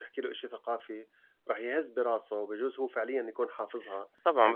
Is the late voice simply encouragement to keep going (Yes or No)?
No